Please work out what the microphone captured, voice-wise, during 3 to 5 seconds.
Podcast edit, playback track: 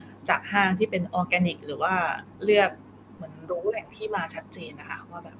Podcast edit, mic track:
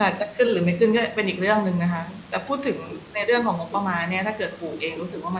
user only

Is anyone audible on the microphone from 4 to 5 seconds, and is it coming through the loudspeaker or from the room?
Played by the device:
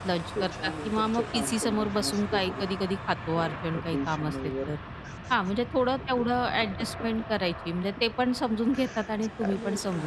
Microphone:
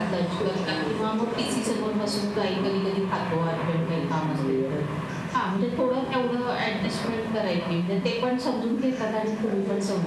echo only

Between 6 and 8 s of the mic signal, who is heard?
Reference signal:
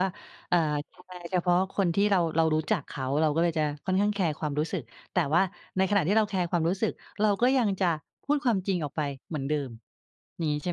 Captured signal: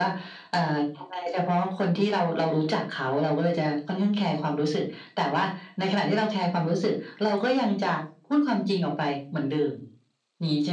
echo only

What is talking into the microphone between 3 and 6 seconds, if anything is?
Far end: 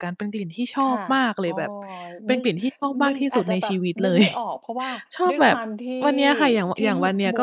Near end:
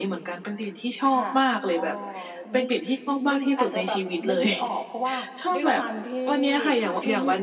echo only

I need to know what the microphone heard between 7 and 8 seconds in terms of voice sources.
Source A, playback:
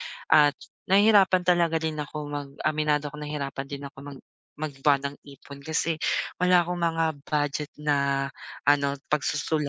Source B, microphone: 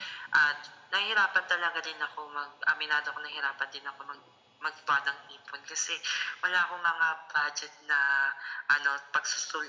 echo only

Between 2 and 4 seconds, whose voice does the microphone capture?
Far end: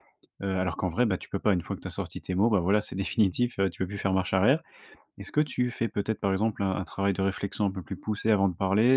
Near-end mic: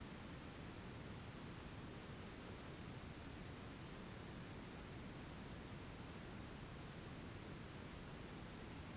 neither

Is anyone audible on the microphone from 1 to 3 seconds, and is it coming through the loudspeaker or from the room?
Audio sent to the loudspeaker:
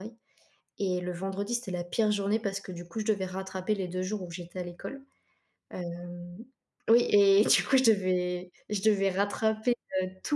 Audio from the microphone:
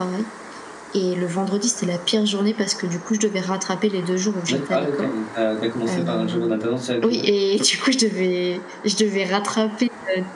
echo only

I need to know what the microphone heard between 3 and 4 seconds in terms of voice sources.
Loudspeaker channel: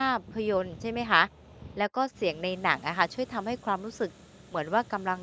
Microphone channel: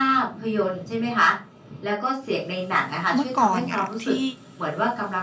both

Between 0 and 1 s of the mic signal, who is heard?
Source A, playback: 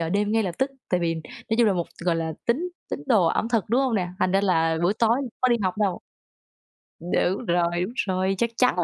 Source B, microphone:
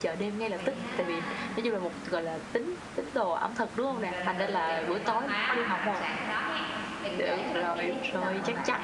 both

